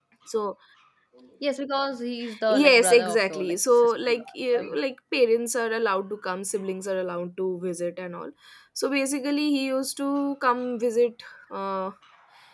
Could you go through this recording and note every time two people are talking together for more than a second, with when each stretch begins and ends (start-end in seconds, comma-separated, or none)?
2.5-4.8